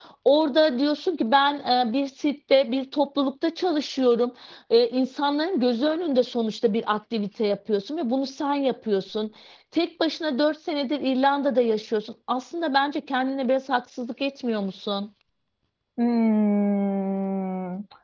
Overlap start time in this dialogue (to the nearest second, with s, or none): none